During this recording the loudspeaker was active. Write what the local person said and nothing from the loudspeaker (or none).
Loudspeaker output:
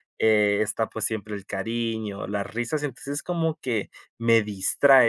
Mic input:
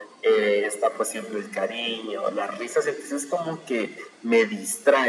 none